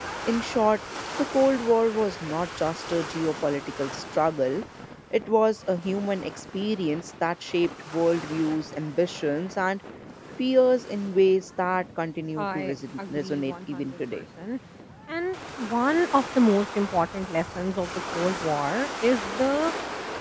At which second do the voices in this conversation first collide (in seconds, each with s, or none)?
12.4 s